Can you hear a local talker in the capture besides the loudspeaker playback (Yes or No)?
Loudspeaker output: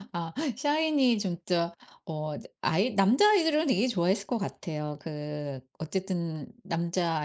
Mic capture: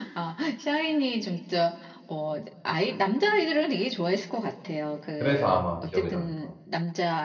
Yes